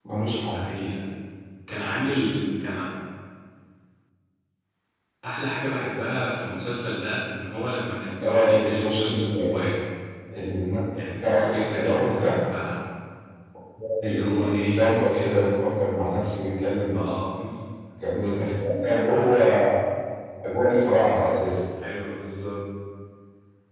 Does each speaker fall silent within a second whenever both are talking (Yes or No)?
No